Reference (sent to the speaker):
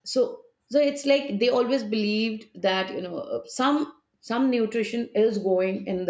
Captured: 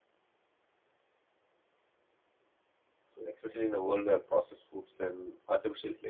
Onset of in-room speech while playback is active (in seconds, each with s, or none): 3.1 s